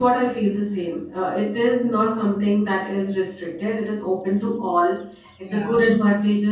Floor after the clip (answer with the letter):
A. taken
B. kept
B